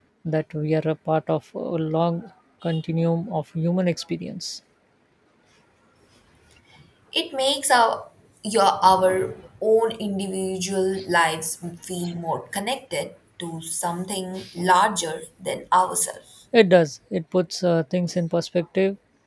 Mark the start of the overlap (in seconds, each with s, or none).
none